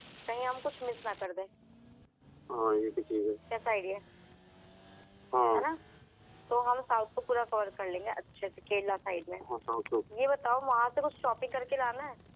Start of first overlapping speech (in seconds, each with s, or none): none